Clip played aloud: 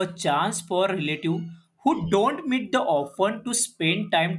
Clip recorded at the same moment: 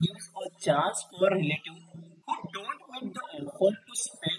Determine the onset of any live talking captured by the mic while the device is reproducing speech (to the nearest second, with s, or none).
none